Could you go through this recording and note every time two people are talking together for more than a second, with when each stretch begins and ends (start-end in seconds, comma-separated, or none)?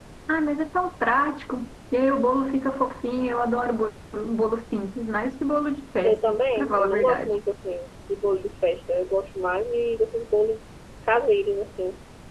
6.0-7.3